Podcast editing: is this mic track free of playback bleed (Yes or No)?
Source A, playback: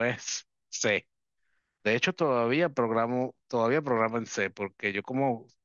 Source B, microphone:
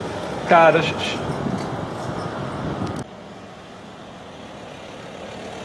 Yes